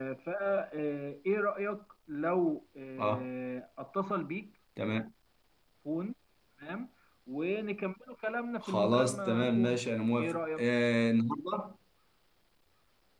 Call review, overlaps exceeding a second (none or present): present